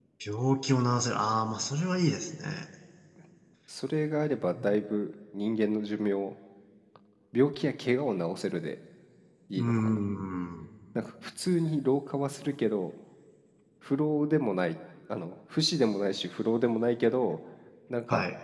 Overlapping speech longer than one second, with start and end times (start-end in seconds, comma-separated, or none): none